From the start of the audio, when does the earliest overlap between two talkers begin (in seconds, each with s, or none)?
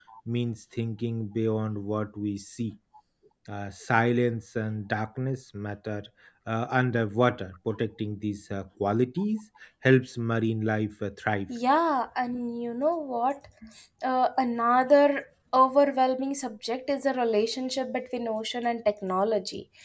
none